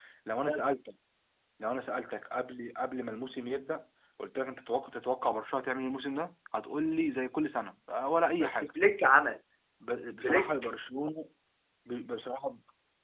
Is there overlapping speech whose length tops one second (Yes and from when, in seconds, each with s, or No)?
No